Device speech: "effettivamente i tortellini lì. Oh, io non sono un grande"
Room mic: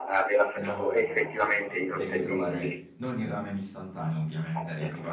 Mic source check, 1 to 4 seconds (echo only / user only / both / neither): both